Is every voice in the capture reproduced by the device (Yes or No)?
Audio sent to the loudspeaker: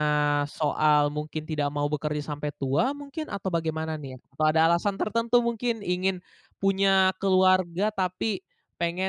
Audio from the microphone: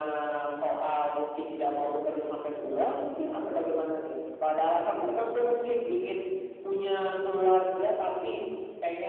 Yes